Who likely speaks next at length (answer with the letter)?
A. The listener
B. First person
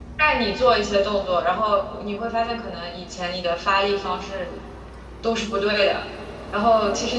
B